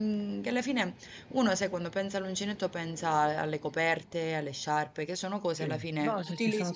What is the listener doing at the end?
taking over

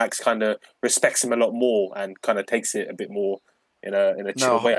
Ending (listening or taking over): taking over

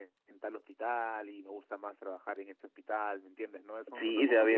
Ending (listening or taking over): taking over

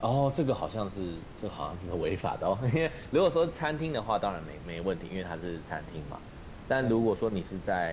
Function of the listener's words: listening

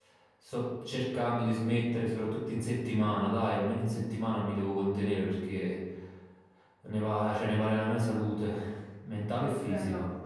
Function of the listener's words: taking over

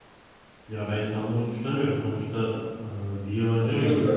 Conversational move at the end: taking over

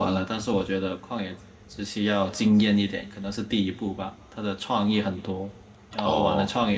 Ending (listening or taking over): listening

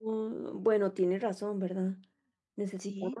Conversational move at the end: listening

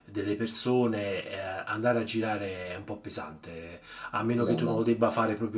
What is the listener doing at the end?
listening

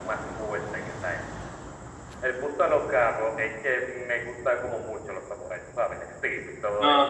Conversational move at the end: taking over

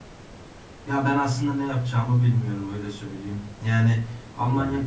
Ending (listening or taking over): listening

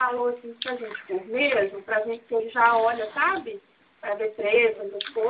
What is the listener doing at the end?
listening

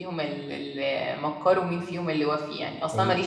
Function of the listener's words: listening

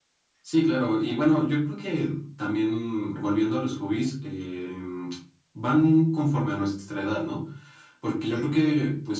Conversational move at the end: listening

